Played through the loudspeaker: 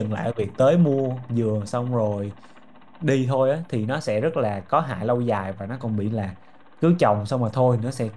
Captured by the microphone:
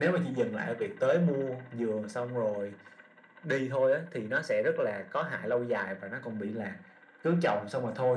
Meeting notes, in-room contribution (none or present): none